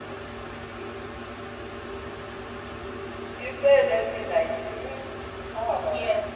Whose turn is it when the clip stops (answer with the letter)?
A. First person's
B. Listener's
B